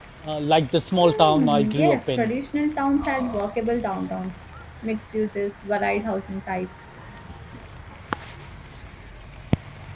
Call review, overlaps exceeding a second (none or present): present